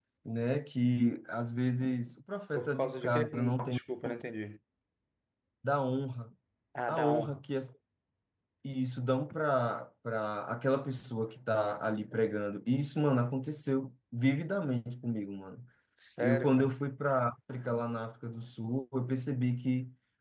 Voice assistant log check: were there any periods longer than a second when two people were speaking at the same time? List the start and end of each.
2.5-3.8

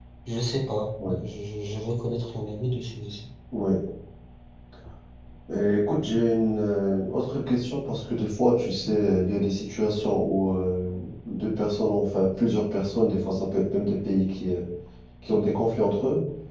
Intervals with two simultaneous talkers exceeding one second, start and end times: none

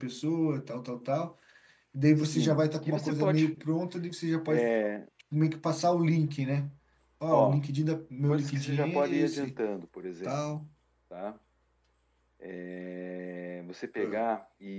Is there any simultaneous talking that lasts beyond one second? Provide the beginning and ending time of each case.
2.2-3.5, 8.3-9.6

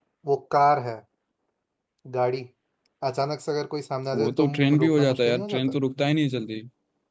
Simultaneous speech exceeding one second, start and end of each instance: 4.1-5.8

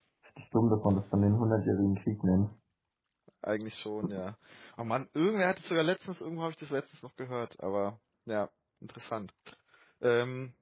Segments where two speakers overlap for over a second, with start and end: none

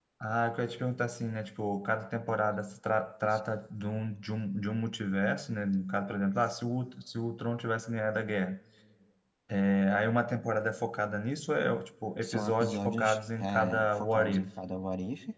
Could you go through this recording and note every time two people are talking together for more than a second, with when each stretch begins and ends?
12.2-14.5

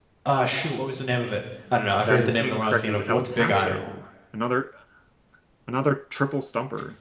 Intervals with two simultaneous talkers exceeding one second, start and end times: 2.0-3.8

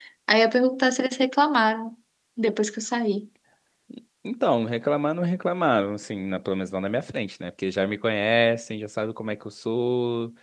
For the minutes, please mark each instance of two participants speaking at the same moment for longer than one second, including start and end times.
none

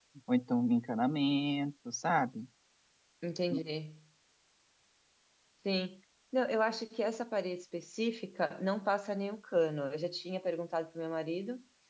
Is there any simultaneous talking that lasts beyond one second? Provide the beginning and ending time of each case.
none

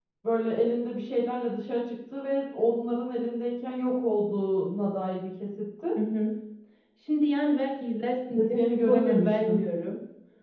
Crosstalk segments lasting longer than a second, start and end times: 8.4-9.7

